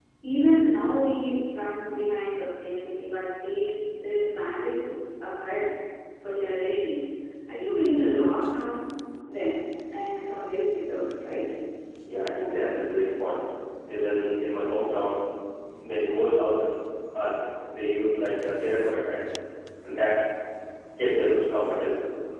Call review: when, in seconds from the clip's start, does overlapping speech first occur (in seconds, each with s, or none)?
none